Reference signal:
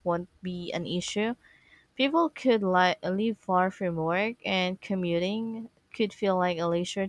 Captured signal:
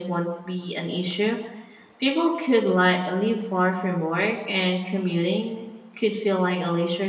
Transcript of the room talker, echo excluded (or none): none